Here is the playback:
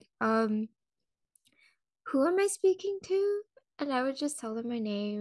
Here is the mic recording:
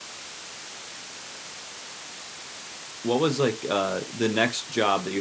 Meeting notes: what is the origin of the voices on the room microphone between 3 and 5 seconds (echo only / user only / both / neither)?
user only